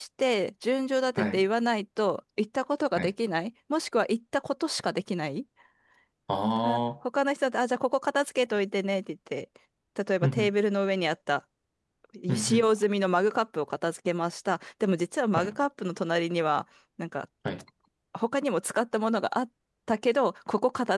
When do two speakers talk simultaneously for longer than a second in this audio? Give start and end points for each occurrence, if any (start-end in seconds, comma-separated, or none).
none